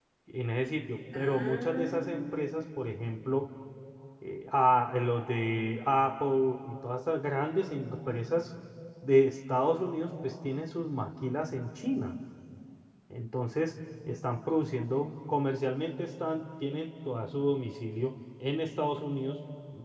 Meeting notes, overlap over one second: present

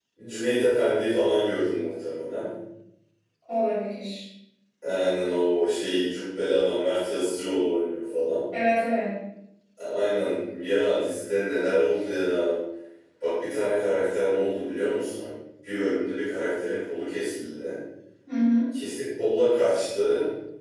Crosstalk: none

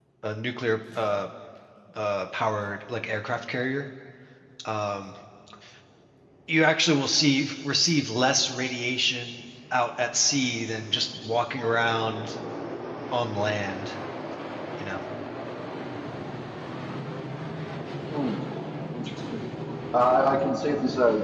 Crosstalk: none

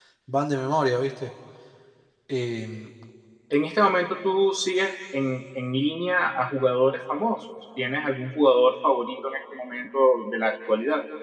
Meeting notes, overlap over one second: none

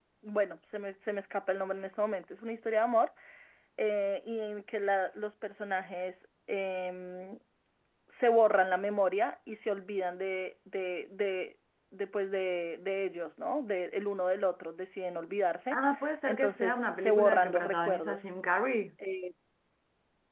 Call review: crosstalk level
present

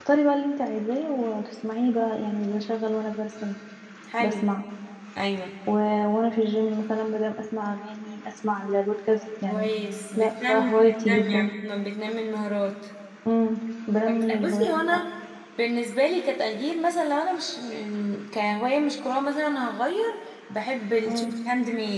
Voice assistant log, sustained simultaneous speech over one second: present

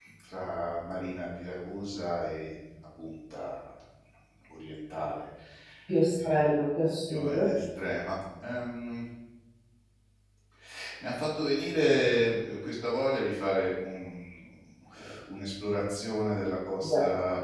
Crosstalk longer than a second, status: none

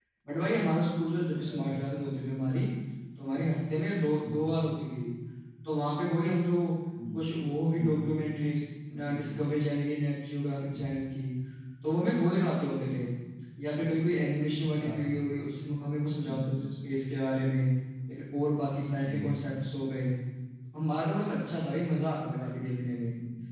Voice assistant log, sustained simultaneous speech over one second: none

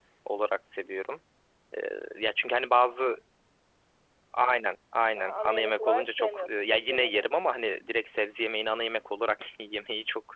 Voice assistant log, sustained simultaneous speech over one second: present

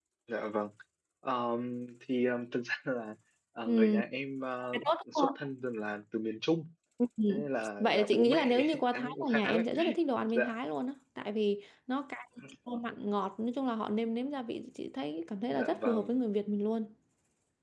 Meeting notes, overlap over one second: present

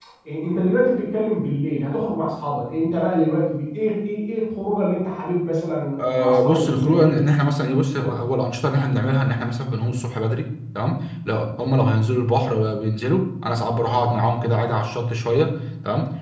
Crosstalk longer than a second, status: present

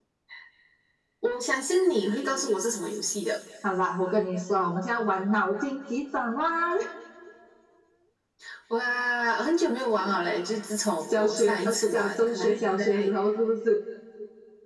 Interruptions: present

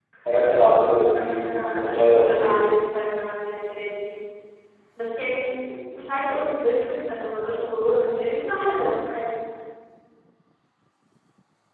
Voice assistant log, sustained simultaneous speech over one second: present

